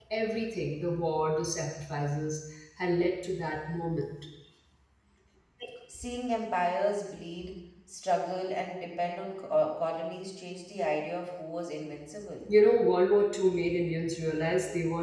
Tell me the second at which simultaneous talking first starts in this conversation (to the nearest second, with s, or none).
none